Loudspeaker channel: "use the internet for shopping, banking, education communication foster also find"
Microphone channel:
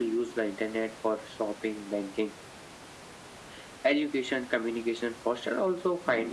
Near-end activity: none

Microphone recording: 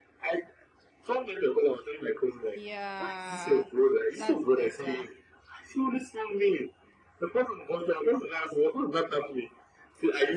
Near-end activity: present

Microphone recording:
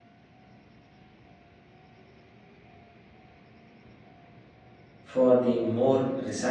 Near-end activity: present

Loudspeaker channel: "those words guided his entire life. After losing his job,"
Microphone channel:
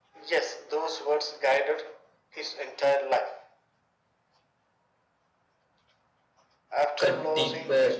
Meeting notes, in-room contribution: present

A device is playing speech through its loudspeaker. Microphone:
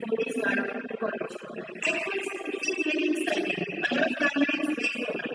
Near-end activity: none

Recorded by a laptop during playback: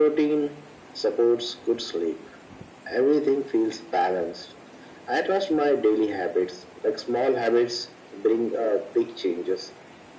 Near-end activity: none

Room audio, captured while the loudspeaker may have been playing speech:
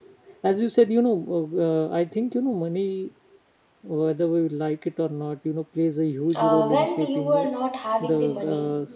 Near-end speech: present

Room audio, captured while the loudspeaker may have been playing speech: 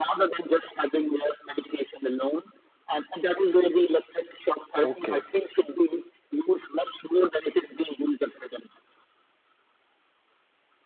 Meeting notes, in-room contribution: present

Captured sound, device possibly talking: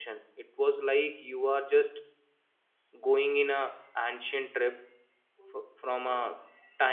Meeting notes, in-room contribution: present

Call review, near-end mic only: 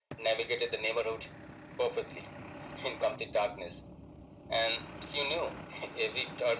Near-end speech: none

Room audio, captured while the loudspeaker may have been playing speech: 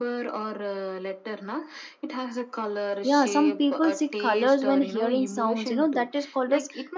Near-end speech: present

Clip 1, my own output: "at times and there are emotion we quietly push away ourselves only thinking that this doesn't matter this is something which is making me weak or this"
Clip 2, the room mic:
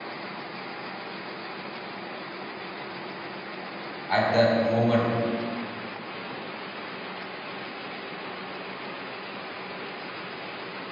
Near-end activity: present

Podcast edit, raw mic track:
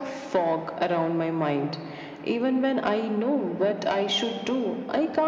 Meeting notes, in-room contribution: none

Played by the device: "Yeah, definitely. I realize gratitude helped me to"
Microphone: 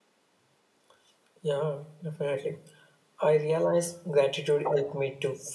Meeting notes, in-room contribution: none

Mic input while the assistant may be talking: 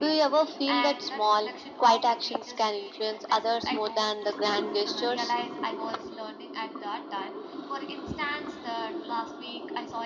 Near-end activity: present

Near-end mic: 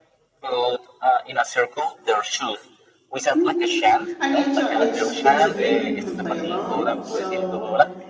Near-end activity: present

